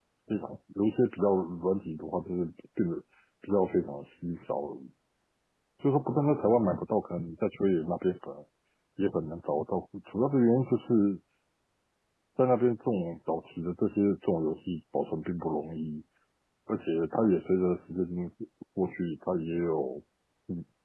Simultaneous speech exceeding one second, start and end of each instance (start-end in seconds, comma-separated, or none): none